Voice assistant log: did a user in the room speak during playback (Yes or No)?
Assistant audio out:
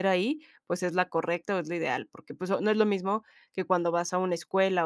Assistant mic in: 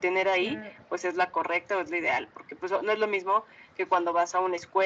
Yes